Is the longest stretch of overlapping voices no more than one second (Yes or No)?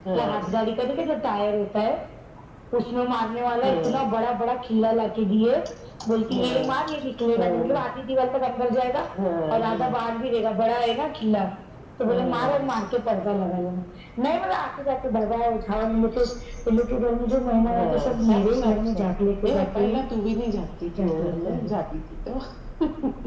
No